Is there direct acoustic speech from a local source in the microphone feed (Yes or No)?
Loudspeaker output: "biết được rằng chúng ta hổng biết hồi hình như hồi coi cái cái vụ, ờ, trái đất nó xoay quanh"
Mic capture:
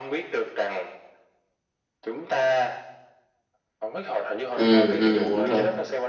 Yes